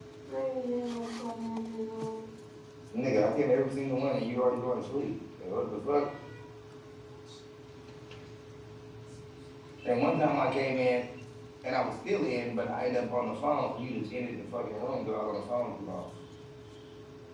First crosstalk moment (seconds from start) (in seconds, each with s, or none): none